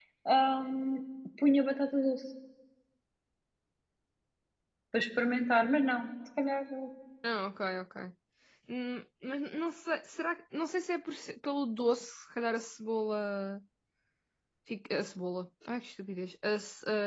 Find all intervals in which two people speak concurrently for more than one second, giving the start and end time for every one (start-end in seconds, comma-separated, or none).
none